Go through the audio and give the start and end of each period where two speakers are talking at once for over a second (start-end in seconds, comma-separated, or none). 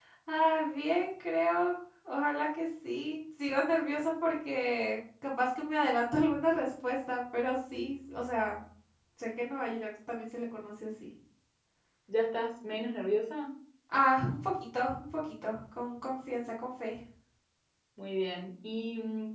none